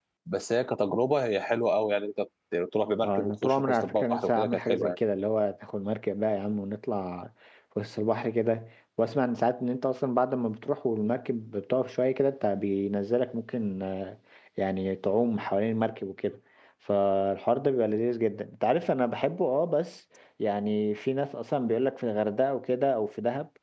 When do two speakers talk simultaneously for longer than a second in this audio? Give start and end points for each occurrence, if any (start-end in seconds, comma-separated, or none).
3.0-5.0